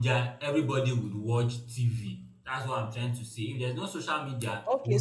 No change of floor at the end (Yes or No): No